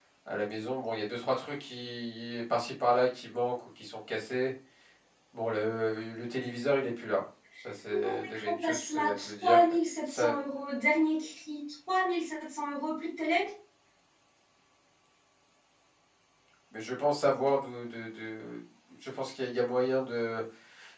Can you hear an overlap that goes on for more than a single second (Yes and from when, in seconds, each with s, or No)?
Yes, from 7.9 s